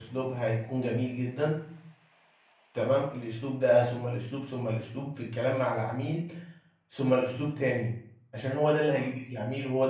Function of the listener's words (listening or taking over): listening